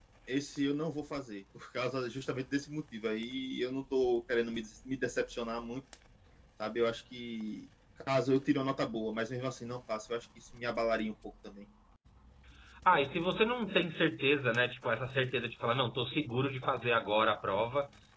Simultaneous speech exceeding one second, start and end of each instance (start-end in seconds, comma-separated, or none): none